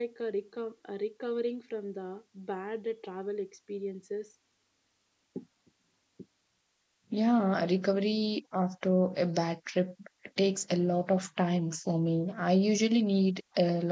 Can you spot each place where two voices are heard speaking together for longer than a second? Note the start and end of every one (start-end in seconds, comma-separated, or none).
none